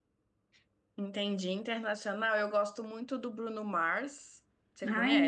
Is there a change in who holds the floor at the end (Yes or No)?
Yes